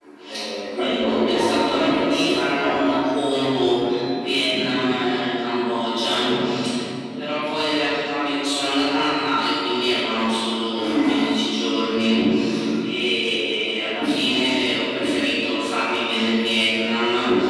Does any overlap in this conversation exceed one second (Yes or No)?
Yes